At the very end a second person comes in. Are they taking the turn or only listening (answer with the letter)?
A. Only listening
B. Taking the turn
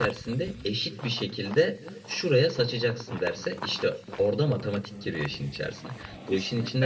A